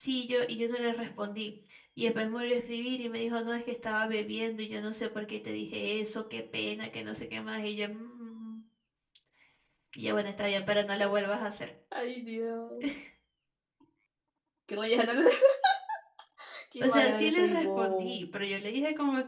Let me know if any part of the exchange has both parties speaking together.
Yes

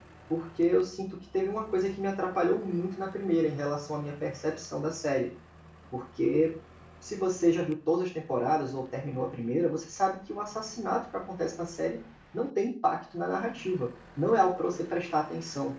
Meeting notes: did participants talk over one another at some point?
No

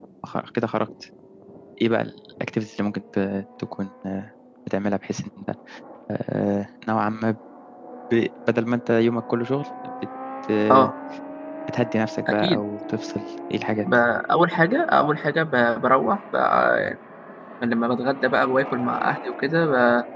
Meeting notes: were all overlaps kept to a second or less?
Yes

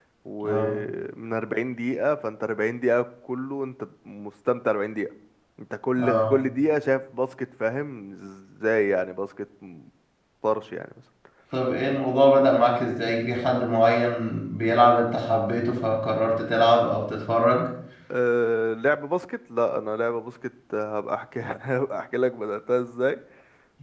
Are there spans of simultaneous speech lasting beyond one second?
No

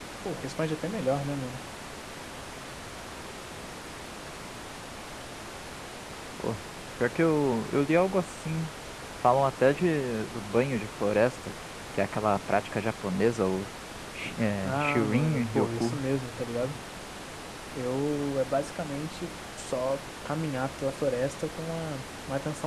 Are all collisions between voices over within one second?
No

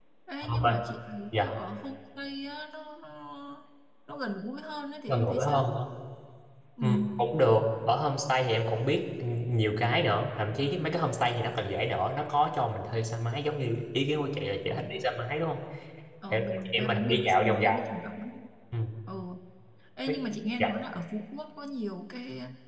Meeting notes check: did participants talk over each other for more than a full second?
Yes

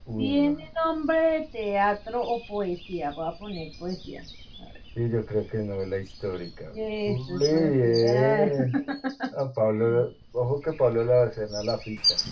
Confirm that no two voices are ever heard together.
No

